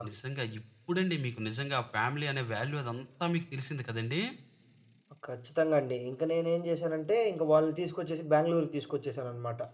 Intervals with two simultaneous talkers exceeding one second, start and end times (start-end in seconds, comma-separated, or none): none